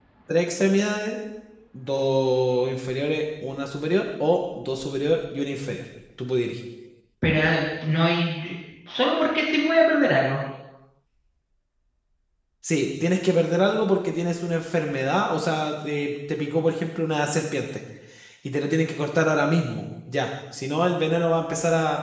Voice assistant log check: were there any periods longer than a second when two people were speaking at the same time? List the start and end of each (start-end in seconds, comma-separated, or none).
none